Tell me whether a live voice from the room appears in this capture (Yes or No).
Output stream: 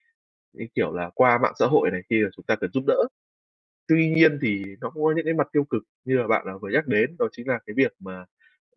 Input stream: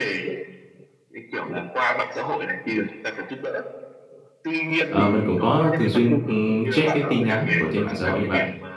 Yes